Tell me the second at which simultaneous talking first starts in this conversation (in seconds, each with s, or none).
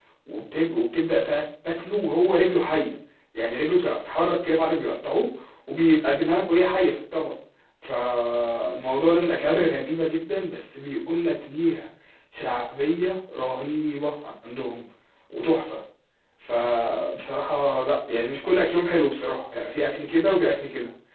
none